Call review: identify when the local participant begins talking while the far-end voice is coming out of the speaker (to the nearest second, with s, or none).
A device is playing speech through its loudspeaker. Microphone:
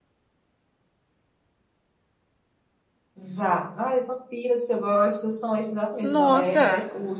6 s